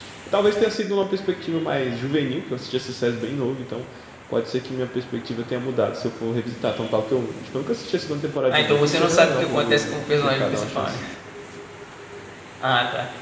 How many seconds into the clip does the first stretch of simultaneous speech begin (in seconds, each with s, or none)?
8.5 s